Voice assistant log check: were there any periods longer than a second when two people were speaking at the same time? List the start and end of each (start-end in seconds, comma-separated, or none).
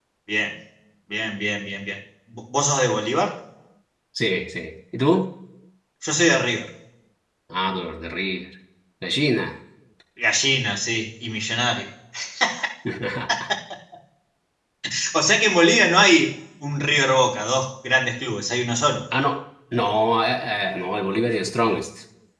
none